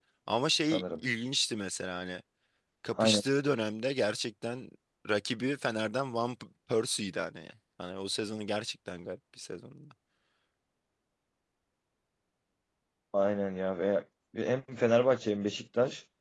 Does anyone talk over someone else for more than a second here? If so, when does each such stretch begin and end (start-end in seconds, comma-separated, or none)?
none